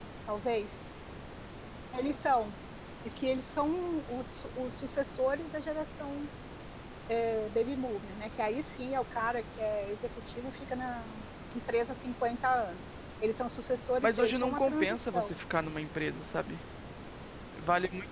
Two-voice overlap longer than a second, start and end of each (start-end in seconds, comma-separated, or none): 14.0-15.4